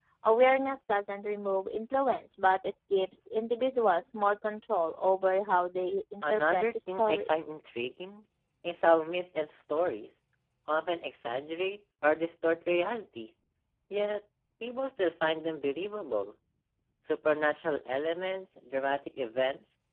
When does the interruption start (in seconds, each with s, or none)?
6.2 s